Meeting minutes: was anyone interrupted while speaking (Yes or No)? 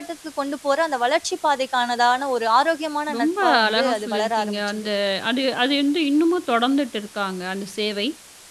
Yes